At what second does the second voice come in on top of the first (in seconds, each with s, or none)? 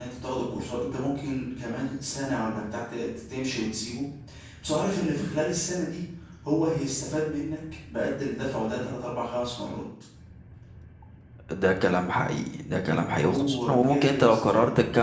13.2 s